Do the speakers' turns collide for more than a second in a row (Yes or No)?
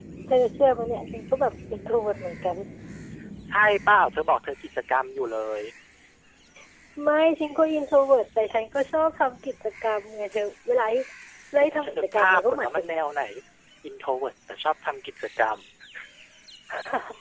Yes